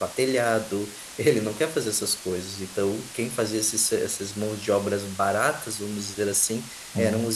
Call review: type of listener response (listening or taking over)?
listening